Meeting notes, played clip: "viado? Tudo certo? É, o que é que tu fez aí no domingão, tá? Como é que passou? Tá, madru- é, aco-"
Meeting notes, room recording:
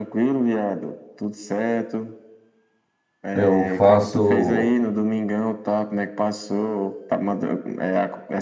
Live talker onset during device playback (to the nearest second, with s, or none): 3 s